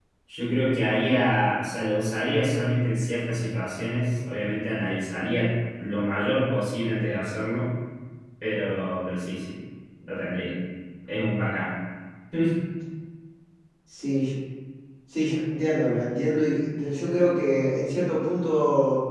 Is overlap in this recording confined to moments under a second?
Yes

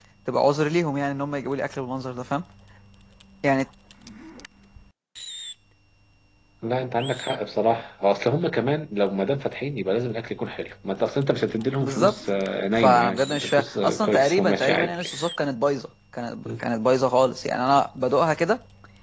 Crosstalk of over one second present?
Yes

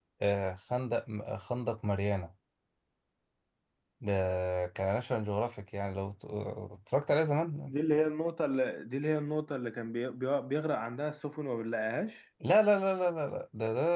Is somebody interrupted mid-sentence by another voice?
No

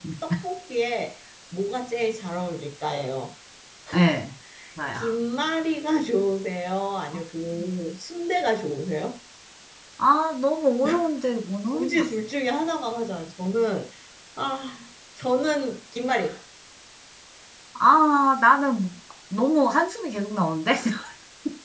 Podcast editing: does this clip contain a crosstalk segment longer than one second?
No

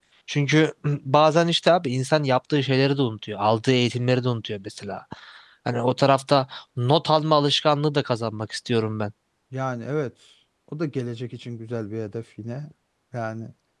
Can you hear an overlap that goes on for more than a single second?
No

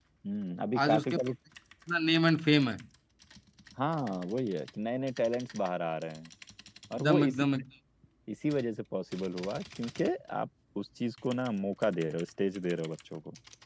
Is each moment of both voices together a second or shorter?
Yes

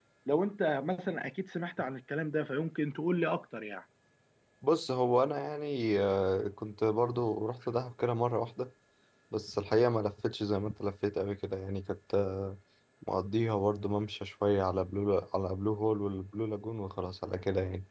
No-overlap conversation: Yes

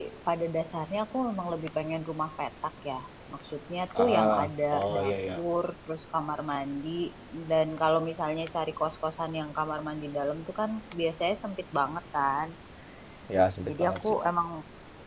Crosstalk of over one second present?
Yes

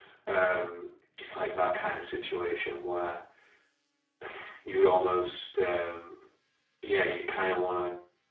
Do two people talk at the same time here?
No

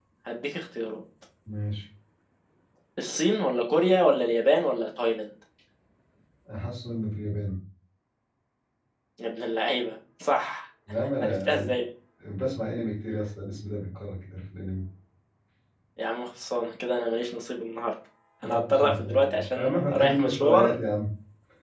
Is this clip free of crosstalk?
No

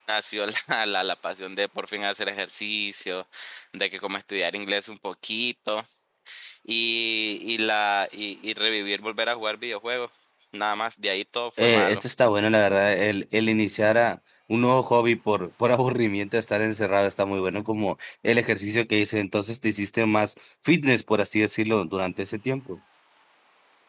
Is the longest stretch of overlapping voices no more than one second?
Yes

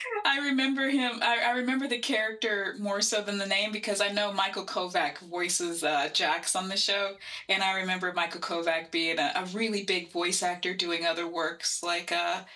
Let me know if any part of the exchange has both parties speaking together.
No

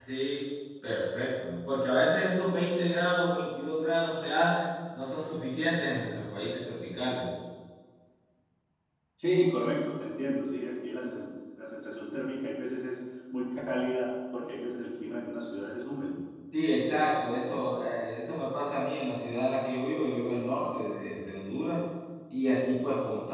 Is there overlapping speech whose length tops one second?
No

